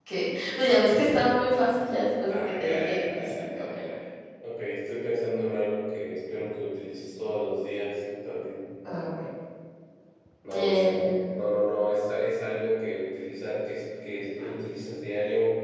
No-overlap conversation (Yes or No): No